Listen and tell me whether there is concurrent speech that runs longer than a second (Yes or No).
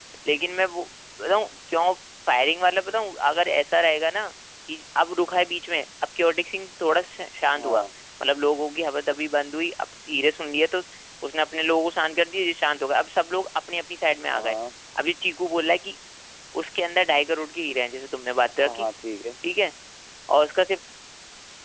No